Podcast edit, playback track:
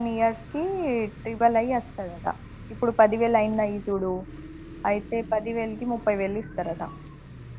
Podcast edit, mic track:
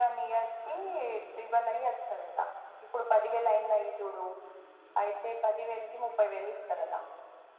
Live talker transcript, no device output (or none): none